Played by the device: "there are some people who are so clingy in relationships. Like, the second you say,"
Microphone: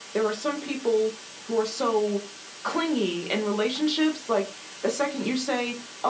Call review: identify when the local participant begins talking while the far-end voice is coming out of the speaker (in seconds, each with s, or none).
none